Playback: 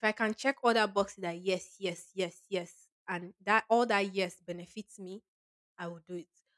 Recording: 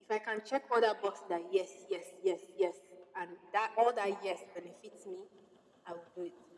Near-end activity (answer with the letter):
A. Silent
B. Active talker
A